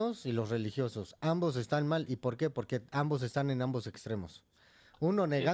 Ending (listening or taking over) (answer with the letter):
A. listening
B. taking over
A